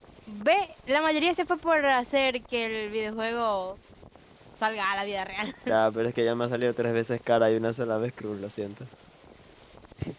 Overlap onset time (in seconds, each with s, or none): none